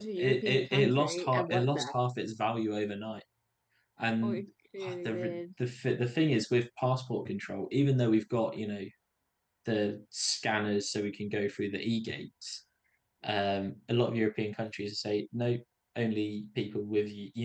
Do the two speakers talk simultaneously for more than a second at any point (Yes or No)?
Yes